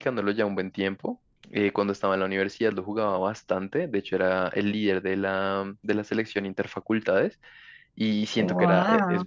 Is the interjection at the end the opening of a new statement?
No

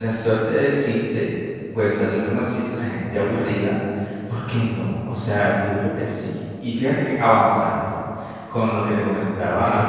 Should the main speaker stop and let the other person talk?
Yes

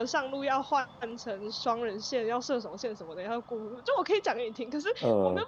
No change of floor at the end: Yes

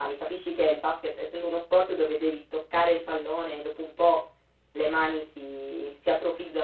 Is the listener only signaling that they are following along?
No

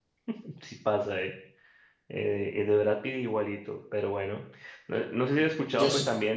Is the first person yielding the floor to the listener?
No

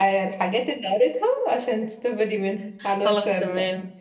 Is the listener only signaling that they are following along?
No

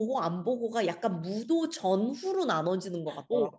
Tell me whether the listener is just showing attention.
No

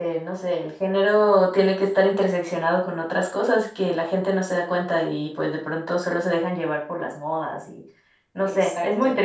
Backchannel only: No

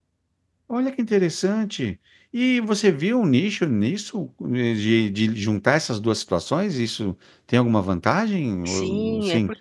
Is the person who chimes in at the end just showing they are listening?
No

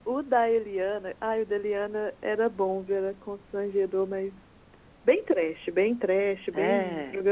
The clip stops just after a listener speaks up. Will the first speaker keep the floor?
Yes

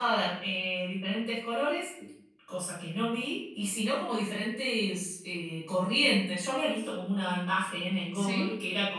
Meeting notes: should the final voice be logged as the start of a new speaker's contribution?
No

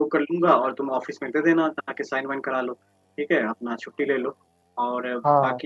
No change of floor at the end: Yes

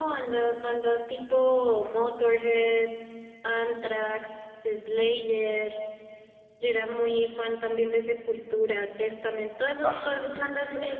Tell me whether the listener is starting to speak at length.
No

